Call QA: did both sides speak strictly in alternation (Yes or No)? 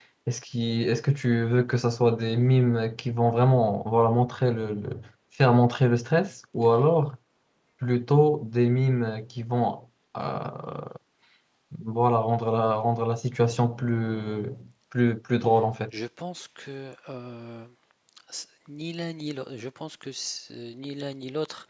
Yes